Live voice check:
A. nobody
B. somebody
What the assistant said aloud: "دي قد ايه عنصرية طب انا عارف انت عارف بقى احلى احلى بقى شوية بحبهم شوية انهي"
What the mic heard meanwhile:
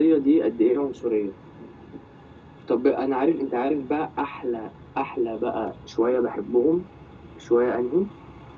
A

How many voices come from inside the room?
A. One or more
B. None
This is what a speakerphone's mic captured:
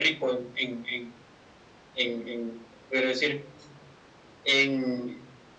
B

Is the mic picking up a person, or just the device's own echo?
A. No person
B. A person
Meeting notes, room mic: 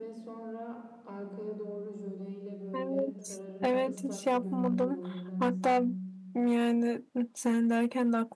B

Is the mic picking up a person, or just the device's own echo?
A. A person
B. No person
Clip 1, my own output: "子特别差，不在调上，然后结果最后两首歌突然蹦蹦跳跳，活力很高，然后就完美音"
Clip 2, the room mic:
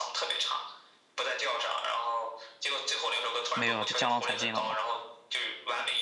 A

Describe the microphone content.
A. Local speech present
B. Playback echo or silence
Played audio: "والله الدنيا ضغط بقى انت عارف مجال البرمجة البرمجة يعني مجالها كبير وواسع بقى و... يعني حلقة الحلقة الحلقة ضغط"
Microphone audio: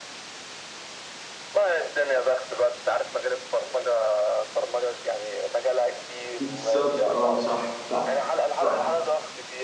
A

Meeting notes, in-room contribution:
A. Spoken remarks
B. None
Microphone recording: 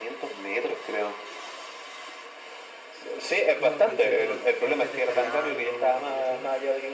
A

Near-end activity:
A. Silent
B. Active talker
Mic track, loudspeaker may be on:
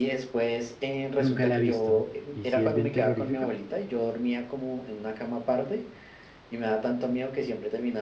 B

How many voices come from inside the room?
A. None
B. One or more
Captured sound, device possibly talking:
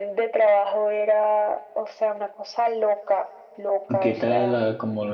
B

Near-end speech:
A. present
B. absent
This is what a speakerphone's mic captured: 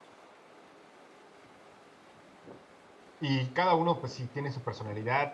A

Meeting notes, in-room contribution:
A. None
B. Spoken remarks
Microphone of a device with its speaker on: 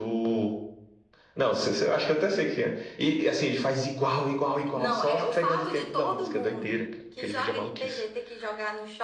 A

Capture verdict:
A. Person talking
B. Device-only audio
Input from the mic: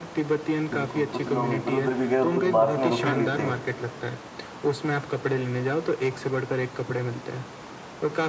A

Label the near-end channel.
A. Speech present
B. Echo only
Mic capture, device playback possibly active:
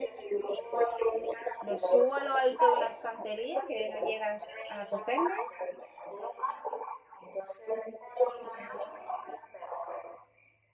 A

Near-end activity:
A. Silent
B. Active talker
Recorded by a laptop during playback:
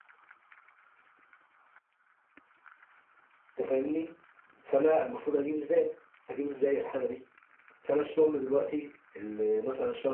B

